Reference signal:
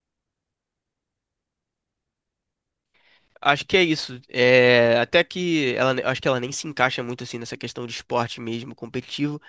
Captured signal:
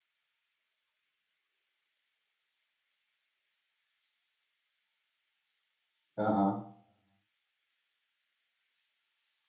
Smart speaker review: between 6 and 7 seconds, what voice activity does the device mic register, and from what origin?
user only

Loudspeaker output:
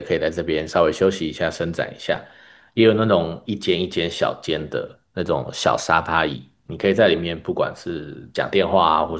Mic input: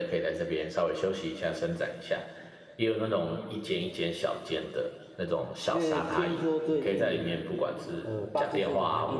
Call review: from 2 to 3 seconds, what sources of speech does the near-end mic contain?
echo only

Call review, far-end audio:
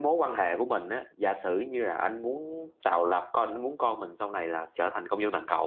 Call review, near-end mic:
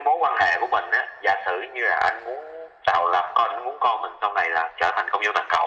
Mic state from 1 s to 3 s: echo only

